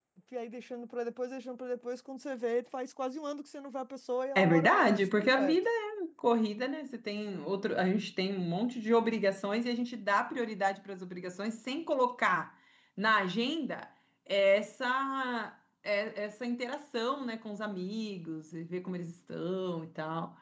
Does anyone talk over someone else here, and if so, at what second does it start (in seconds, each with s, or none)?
4.3 s